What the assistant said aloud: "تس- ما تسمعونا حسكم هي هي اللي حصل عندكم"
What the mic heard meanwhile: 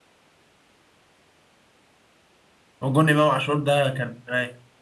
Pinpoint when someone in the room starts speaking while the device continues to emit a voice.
3 s

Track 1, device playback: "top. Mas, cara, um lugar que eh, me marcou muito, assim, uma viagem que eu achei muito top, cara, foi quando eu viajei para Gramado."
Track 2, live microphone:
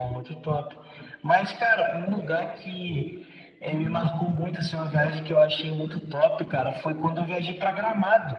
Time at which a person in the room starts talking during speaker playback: 4 s

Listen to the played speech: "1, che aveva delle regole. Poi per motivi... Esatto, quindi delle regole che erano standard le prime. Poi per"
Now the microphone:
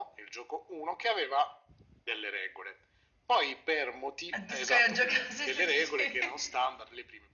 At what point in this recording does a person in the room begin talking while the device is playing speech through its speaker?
4 s

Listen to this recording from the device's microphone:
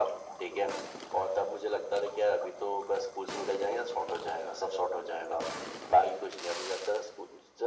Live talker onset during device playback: none

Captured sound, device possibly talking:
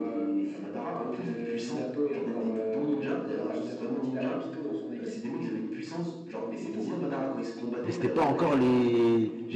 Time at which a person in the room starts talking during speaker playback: 8 s

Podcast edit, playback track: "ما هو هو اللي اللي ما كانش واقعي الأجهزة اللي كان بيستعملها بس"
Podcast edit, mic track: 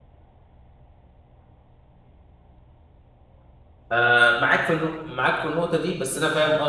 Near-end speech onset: 4 s

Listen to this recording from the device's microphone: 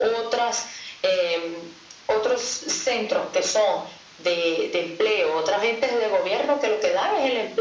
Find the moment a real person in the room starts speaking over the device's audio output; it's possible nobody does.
none

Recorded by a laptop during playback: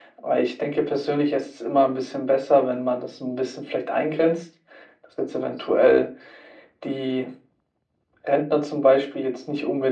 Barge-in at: none

